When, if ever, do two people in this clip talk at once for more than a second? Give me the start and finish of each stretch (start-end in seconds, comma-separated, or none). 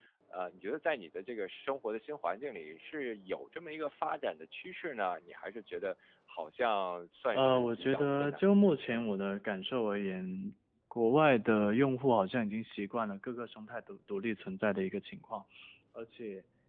7.3-9.0